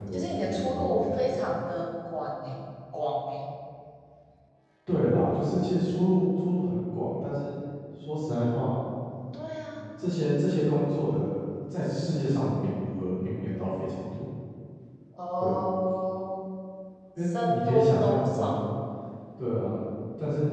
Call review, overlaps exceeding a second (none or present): present